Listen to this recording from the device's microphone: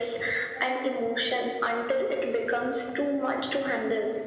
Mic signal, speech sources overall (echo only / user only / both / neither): echo only